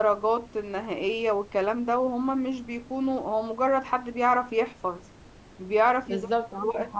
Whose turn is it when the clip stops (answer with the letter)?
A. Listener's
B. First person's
A